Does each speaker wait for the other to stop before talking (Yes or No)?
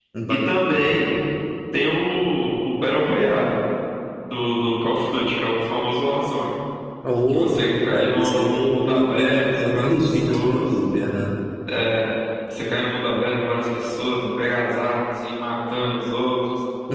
No